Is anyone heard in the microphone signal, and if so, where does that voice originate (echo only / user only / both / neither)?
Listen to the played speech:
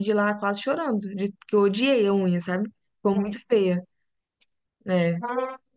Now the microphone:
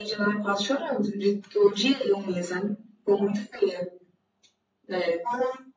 both